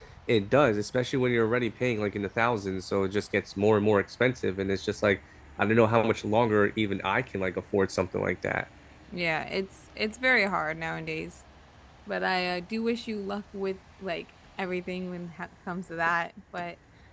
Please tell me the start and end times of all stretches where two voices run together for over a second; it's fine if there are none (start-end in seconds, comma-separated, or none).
none